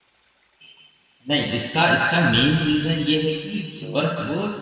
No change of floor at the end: Yes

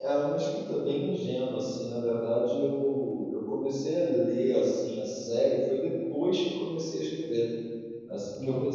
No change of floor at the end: Yes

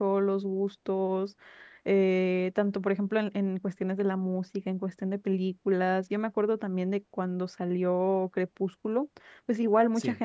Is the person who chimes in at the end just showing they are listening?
Yes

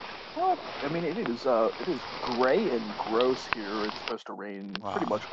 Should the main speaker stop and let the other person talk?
No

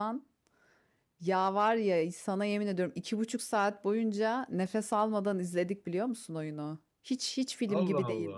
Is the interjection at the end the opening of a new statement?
No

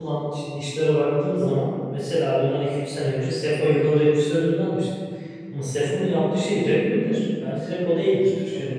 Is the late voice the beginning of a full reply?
Yes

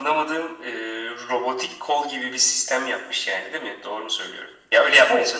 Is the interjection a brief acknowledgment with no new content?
No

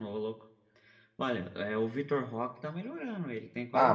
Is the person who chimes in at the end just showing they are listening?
No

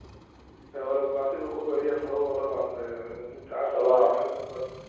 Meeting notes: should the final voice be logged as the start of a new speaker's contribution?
No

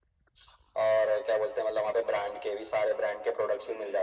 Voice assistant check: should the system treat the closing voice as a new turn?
Yes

